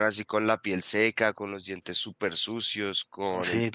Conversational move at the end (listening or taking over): taking over